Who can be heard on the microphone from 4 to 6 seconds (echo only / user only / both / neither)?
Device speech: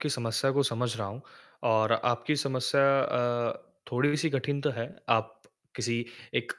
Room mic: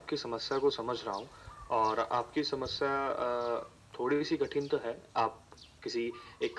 echo only